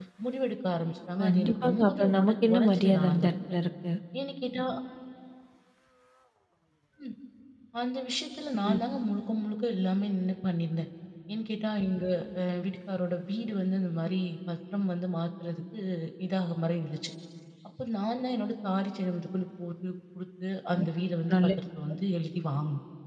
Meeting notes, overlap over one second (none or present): present